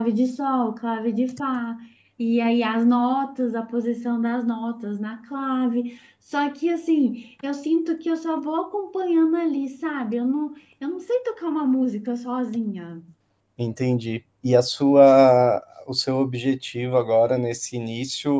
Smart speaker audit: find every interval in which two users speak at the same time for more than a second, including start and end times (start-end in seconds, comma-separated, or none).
none